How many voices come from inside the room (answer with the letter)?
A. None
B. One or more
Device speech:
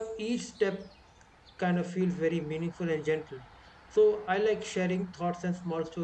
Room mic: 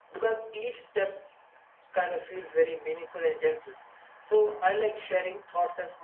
A